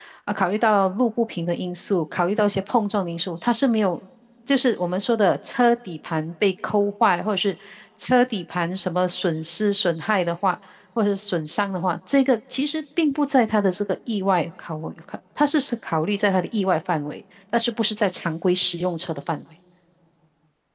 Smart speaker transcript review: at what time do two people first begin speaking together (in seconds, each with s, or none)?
none